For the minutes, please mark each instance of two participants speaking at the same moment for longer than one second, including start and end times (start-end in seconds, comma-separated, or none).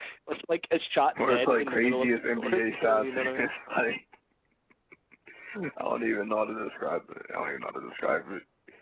1.2-3.5